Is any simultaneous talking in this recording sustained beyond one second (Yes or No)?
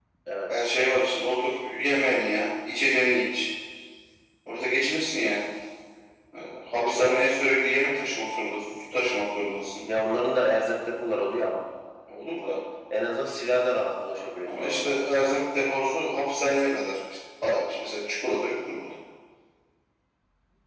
No